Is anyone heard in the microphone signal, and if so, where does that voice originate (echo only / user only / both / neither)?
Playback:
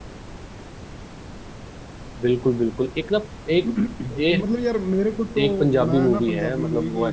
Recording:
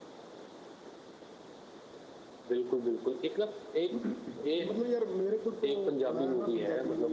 echo only